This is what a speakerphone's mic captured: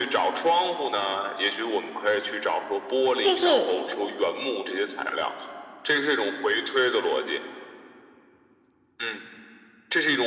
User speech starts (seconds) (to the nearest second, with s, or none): 3 s